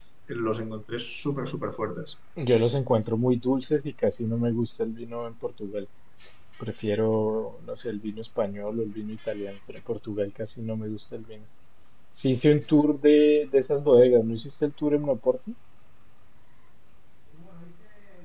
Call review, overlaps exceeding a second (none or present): none